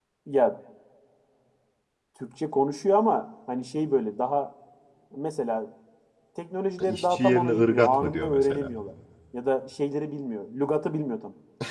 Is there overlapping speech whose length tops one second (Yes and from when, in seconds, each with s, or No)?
Yes, from 6.8 s